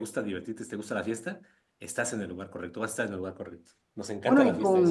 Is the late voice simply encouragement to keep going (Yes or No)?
No